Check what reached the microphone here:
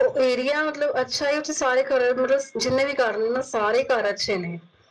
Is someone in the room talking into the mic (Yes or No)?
No